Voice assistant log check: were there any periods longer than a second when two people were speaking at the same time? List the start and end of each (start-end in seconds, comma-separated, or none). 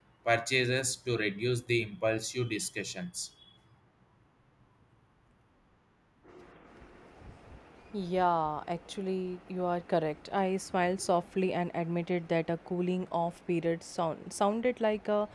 none